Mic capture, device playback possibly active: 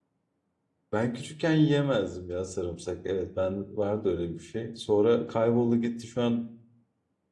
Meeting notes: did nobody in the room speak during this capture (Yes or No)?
No